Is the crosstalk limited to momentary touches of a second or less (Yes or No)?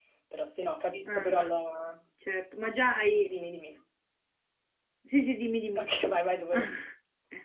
Yes